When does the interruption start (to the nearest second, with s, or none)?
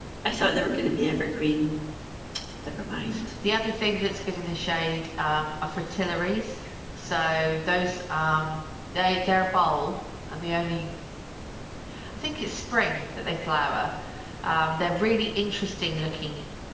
none